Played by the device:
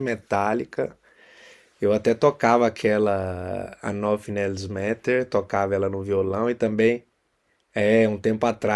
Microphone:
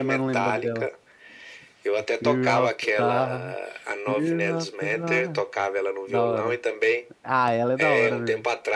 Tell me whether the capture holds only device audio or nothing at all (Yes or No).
No